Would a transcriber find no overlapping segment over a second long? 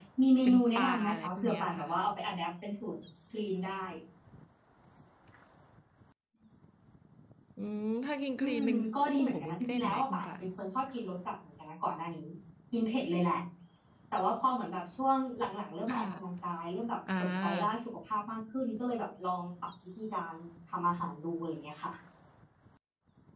No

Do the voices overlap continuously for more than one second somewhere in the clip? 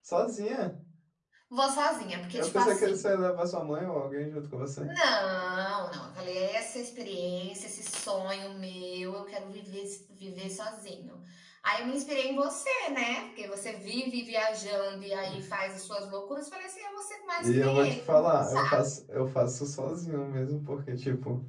Yes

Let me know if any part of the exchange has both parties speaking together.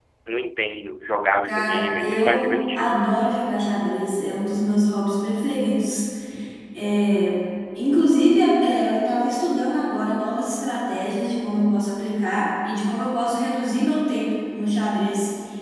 Yes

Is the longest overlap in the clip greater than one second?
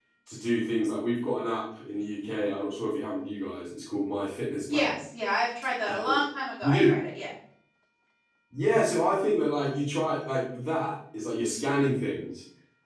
No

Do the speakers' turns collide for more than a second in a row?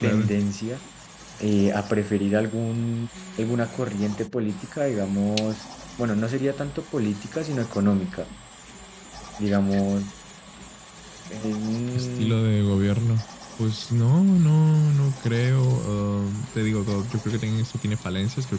No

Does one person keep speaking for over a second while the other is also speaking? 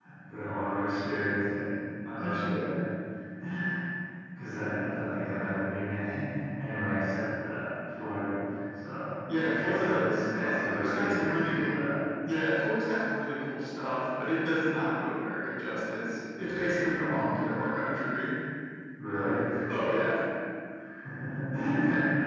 Yes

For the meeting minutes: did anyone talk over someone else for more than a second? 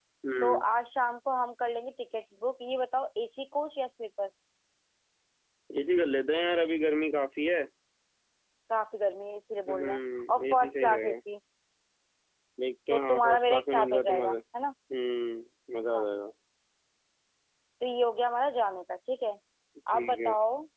Yes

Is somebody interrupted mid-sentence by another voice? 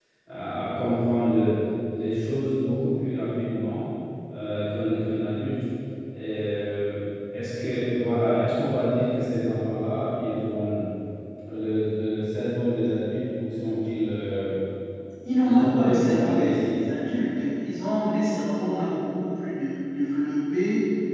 Yes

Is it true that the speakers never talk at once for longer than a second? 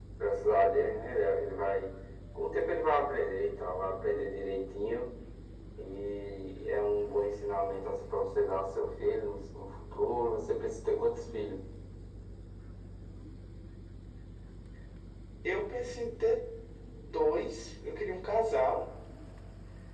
Yes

